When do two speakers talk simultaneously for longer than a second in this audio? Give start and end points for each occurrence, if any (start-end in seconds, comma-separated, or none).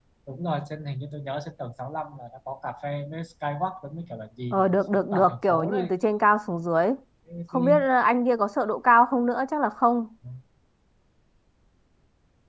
4.5-5.9